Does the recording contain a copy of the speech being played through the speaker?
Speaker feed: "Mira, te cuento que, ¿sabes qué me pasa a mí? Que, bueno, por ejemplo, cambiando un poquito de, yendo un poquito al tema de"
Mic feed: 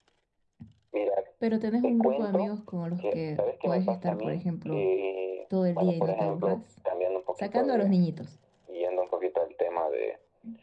Yes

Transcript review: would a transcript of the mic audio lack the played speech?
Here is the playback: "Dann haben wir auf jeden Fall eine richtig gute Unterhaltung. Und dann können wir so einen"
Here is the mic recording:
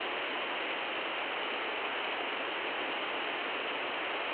Yes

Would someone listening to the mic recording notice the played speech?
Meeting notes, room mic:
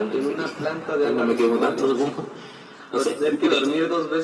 Yes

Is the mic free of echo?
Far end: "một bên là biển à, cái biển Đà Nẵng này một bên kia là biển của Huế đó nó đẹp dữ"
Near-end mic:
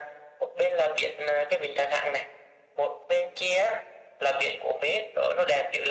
No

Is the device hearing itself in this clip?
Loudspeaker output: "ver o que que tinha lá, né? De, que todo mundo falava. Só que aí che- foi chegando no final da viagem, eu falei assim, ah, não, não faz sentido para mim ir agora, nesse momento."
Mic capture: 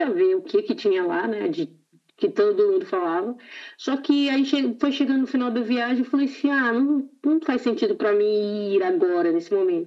Yes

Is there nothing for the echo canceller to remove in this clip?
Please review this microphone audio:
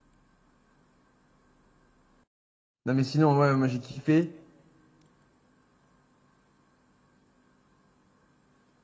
Yes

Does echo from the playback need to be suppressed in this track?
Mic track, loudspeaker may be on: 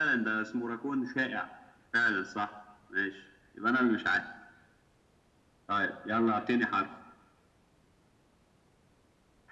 Yes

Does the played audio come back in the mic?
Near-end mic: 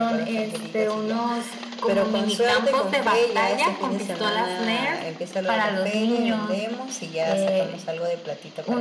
Yes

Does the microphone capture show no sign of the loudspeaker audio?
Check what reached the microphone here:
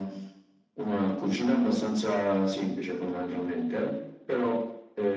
No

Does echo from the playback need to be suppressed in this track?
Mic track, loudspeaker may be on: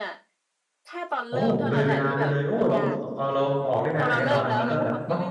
Yes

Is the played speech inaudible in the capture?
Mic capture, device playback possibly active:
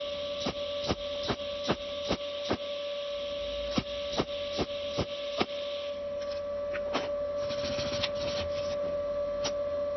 Yes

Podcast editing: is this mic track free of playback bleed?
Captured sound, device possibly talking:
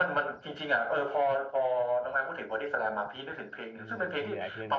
No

